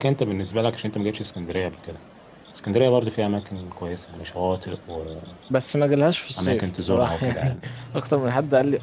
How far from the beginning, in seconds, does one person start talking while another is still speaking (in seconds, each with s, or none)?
6.4 s